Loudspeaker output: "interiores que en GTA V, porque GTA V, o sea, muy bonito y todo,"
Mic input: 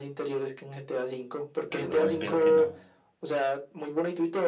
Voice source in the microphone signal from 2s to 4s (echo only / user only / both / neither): both